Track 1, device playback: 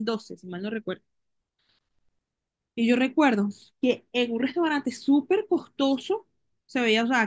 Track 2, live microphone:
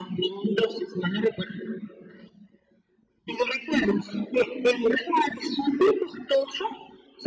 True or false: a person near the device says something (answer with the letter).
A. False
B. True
A